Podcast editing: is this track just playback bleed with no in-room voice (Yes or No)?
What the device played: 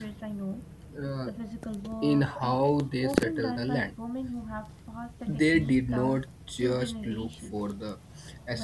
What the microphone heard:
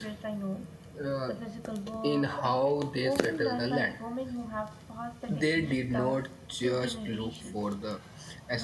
Yes